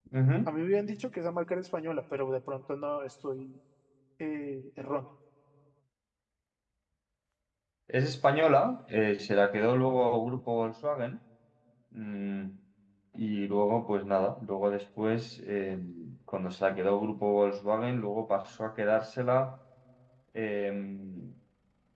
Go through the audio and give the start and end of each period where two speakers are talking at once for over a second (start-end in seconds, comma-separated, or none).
none